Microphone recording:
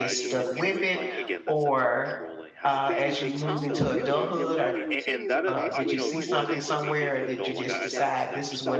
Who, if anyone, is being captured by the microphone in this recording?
both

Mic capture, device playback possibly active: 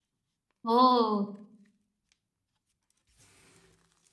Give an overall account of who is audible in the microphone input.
user only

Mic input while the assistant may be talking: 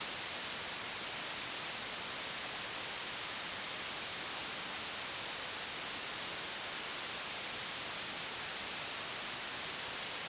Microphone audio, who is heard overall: neither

